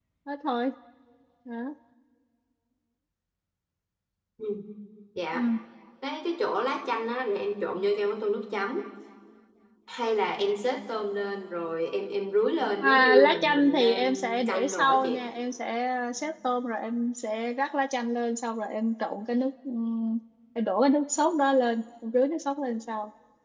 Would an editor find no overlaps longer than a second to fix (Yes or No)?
No